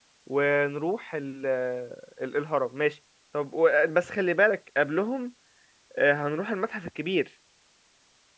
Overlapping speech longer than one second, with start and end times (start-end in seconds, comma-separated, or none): none